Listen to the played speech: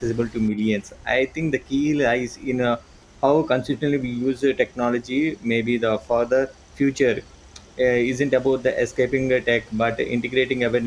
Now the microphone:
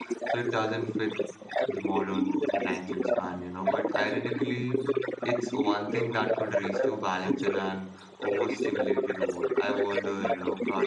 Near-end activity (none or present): present